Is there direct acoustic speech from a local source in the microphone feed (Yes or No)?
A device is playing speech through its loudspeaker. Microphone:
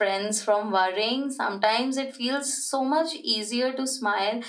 No